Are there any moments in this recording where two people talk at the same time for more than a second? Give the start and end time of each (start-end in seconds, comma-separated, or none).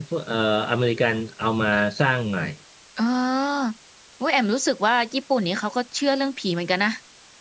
none